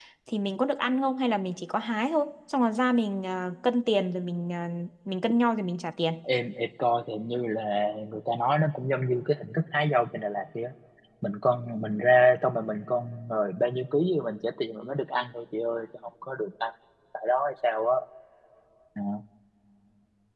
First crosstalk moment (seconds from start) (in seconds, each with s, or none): none